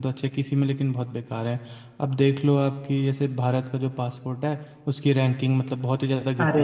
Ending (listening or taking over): taking over